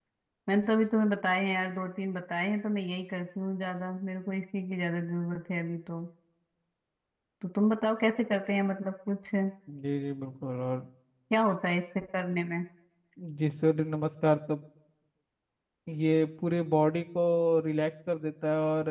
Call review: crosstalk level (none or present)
none